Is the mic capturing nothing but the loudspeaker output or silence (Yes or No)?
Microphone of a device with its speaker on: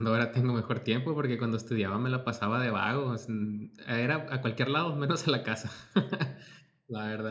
No